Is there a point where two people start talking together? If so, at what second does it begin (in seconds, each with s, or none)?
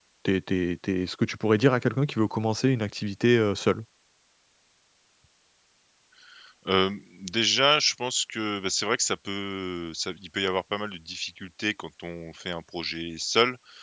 none